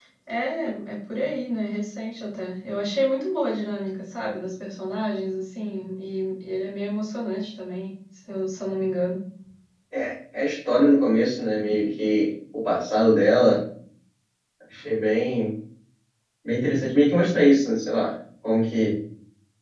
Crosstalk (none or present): none